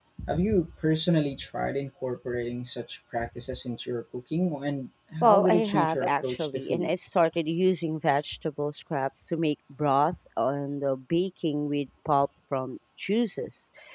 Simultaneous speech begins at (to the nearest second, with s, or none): 5 s